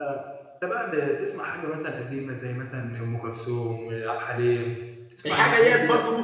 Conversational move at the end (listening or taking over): taking over